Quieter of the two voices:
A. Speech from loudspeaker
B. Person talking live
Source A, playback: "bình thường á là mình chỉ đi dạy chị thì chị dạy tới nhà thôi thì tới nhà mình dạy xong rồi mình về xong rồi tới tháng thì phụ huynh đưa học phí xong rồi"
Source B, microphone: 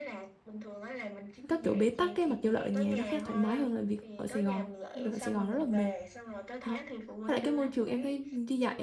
A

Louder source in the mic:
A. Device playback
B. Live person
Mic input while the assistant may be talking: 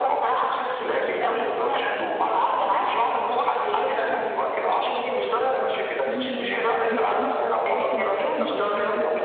A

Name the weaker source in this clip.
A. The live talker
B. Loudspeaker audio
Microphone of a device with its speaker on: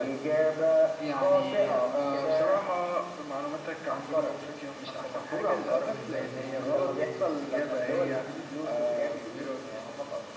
A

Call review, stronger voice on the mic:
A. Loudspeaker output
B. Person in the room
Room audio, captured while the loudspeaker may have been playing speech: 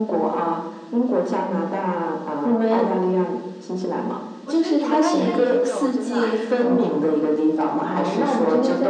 A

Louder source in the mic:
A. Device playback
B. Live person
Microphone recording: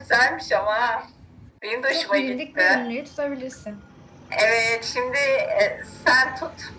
A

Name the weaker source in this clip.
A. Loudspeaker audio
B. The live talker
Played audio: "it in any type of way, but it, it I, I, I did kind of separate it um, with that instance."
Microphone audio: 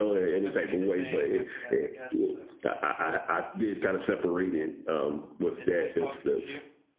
B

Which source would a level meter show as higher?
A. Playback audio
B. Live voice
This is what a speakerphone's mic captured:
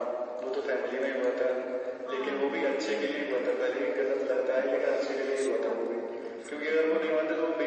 A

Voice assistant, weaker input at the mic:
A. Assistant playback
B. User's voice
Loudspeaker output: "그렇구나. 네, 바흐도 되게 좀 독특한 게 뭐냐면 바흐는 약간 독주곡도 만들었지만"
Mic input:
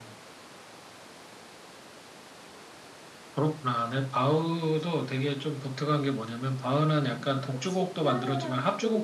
B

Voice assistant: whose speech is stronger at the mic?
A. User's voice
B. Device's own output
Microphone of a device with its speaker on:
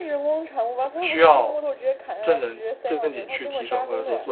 A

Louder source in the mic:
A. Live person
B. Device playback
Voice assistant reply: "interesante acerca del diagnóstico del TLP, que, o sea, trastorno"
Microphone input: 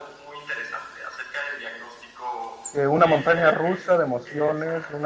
A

